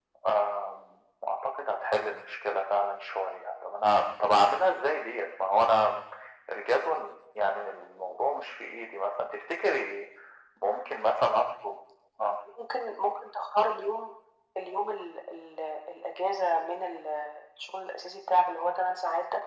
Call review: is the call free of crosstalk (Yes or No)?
Yes